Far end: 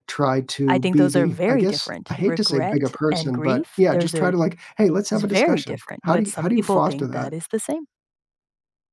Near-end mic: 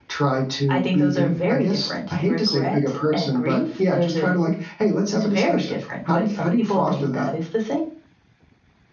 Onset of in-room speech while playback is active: none

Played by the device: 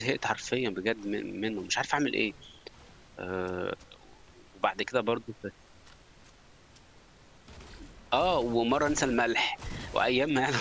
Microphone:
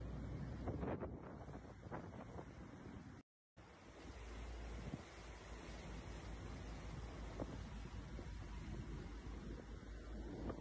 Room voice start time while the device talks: none

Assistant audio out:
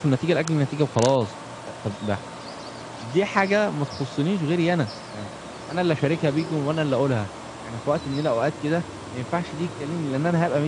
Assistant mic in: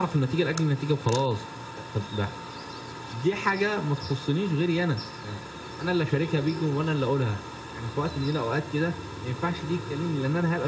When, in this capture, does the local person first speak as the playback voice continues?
none

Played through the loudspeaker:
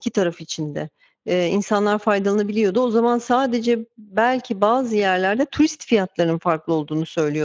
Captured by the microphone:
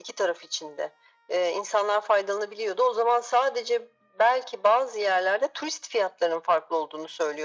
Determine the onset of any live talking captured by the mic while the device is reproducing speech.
none

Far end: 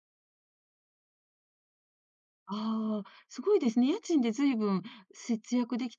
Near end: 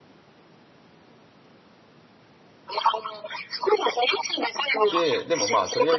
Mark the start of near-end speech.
4.9 s

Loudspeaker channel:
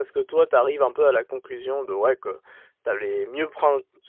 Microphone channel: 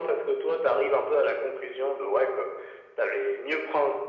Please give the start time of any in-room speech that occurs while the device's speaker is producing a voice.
none

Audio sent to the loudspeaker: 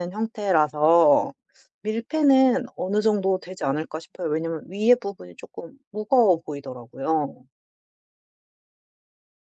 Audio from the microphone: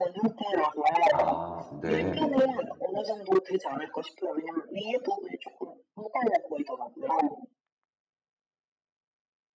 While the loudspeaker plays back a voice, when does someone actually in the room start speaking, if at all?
1.1 s

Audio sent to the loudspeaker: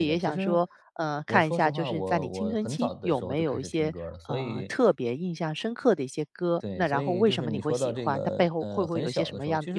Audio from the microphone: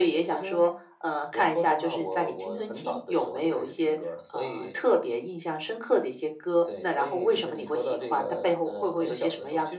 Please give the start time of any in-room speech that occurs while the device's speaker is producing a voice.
none

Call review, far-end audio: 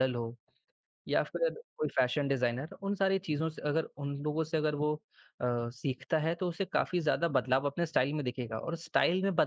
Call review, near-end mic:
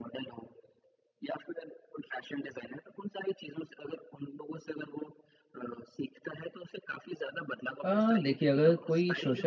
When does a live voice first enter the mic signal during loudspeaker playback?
7.8 s

